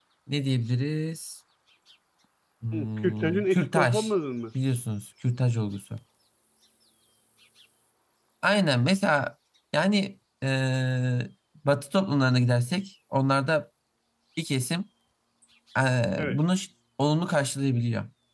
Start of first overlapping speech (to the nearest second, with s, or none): 3 s